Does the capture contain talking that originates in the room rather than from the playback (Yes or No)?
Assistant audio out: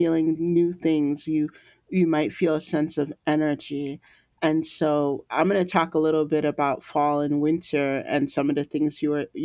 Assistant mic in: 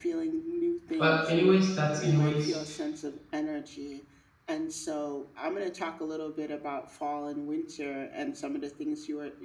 Yes